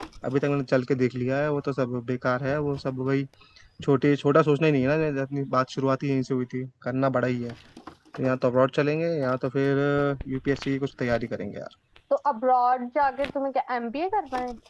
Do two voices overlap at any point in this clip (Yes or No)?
No